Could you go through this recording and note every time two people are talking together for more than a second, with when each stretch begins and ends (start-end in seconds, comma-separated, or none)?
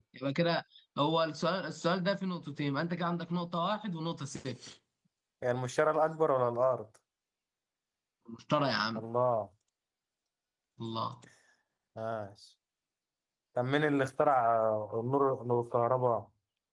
none